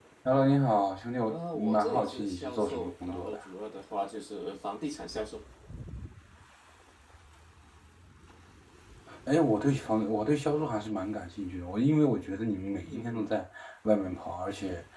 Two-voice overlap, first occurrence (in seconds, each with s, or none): 1.3 s